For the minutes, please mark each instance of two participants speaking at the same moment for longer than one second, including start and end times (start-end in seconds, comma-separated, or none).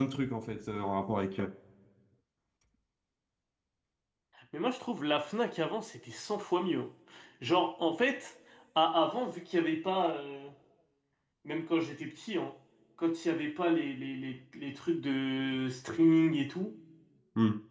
none